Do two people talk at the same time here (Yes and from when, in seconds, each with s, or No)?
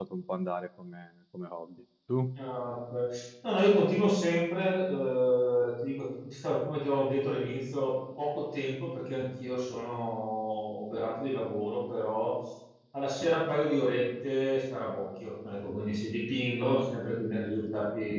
No